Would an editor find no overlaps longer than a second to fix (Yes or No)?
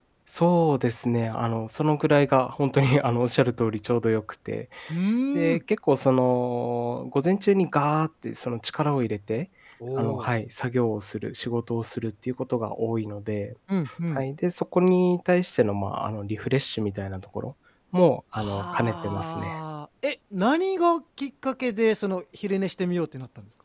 No